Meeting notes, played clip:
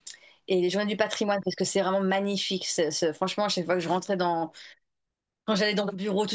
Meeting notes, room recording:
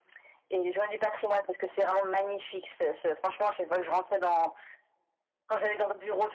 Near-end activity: none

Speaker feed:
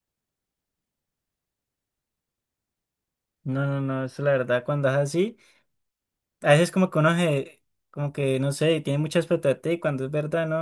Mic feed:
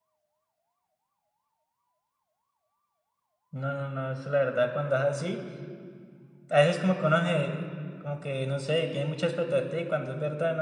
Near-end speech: none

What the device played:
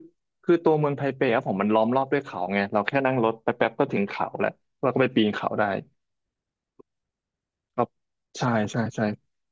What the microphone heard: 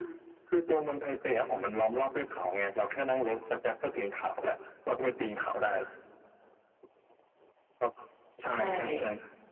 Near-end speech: present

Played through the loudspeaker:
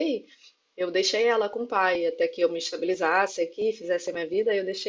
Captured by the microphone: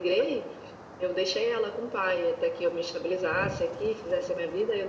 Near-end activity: none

